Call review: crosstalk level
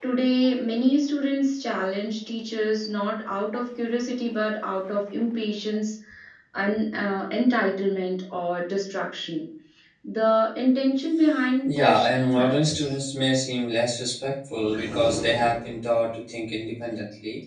present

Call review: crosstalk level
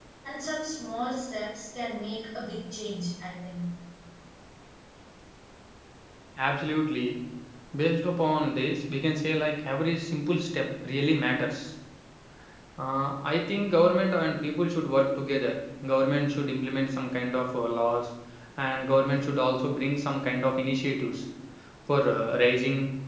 none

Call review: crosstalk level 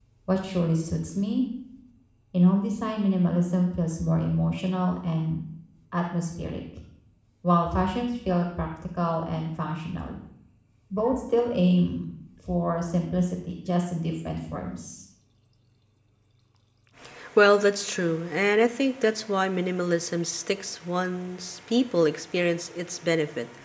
none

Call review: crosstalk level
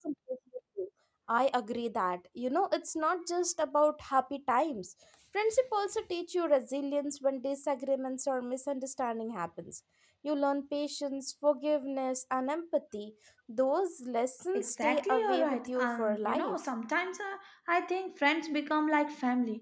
present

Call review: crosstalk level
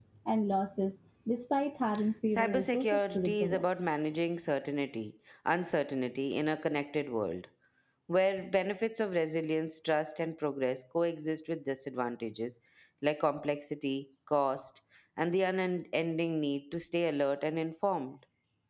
present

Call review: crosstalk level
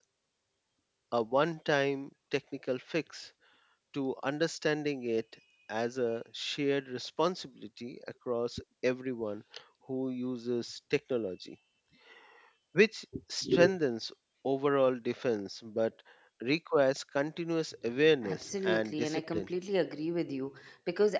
present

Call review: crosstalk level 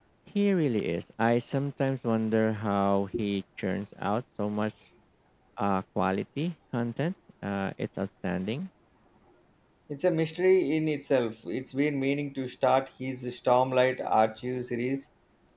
none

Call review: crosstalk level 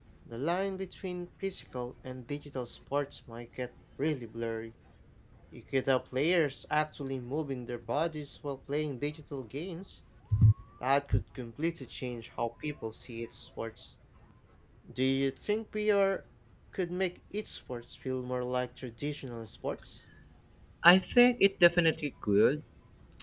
none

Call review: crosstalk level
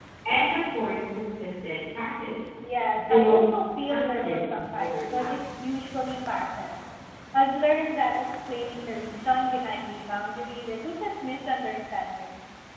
present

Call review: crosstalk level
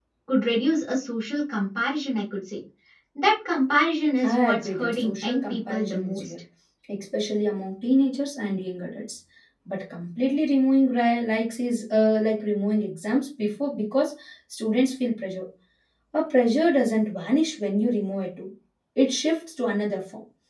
present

